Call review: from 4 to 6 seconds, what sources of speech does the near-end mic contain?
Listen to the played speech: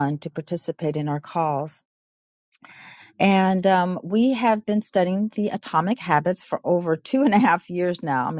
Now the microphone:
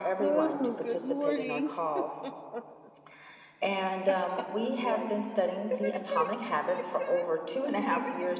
both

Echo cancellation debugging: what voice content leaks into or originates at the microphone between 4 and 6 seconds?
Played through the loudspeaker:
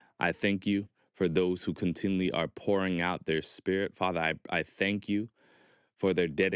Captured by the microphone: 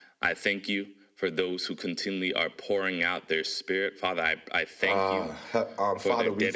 both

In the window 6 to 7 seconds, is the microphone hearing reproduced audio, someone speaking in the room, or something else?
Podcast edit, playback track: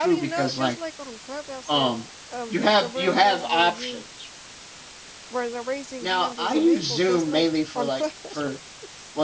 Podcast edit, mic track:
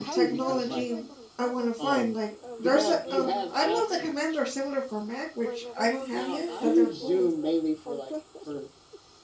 both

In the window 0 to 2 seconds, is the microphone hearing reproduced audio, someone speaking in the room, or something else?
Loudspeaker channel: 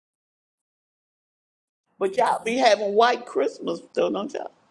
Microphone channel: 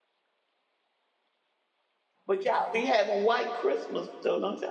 neither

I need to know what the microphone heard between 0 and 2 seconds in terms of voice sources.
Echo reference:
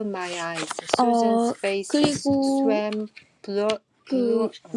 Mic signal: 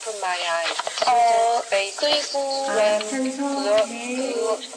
echo only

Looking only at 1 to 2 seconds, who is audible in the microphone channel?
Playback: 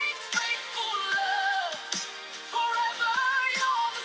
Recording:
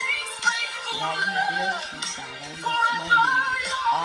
both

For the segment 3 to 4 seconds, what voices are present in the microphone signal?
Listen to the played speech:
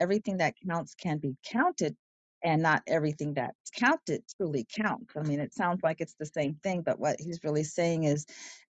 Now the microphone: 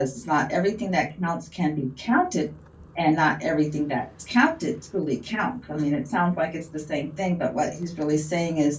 echo only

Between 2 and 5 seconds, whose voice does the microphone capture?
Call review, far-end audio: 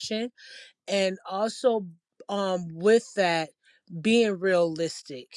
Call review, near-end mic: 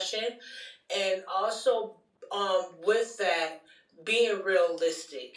echo only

